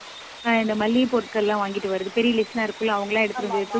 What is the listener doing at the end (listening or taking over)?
listening